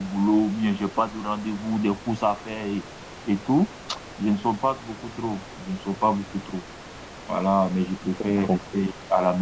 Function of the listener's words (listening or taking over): listening